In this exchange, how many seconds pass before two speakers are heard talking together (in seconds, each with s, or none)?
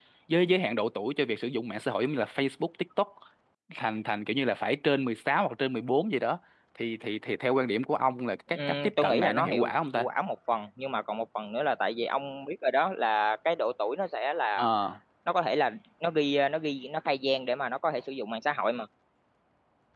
8.5 s